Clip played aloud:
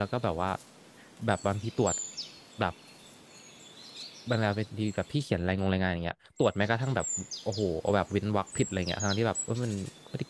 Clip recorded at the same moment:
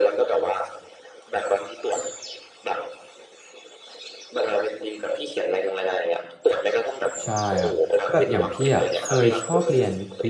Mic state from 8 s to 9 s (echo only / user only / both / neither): both